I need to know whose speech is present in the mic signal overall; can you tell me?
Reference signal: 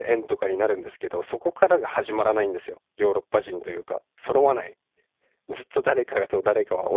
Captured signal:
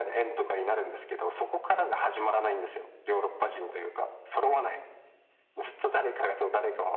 echo only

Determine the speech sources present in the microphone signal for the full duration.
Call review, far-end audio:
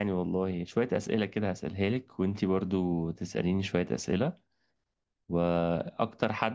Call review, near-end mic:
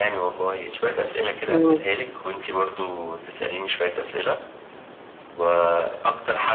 both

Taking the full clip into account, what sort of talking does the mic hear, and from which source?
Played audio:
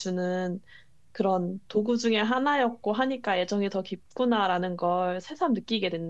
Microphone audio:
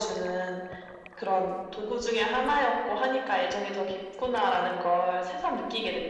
echo only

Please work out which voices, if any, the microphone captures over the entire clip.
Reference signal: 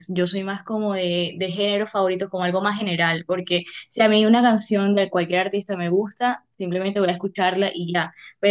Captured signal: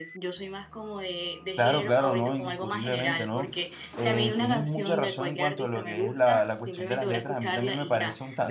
both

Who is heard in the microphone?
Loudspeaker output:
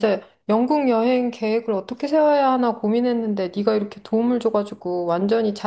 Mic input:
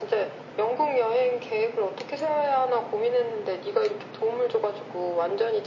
echo only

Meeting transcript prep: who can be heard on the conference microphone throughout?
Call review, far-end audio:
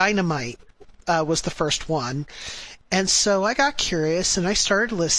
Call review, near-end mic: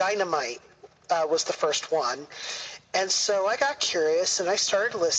echo only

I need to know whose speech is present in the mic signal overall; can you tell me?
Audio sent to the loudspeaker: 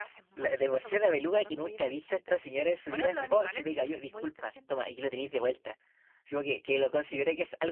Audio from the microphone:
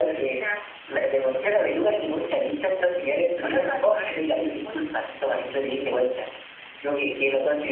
echo only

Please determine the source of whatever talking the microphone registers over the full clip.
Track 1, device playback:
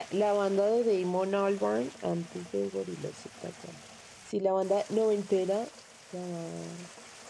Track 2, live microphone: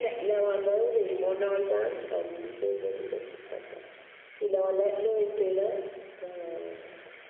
echo only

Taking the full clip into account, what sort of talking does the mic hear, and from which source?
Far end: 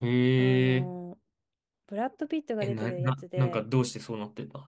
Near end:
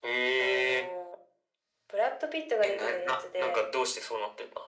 echo only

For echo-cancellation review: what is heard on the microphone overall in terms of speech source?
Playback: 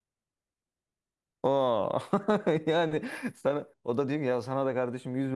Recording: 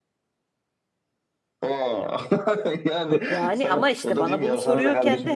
both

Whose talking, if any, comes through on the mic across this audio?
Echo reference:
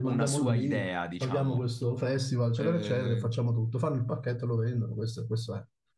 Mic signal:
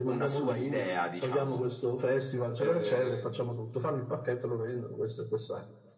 echo only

